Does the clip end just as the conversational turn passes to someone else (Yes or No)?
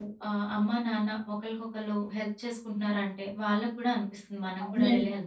Yes